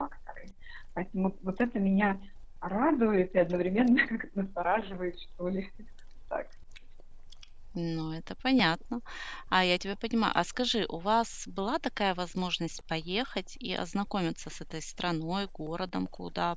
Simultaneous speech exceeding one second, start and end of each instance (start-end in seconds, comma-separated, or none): none